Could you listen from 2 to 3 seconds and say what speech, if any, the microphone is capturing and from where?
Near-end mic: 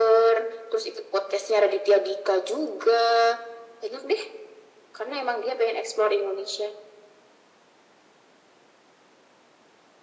echo only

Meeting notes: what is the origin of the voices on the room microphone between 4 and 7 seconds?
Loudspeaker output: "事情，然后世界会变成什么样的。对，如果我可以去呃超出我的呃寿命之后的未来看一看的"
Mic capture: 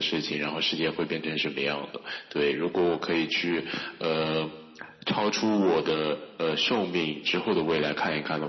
echo only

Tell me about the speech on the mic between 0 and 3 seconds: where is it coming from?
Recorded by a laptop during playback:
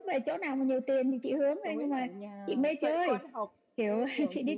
both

